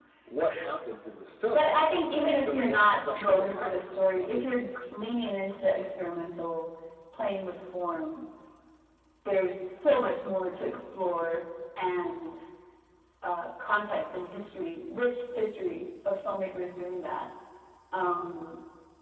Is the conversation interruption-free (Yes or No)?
No